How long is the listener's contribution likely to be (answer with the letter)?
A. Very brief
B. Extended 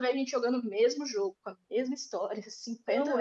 B